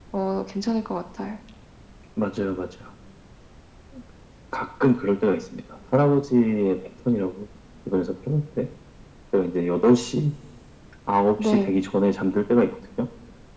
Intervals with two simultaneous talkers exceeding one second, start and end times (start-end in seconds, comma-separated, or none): none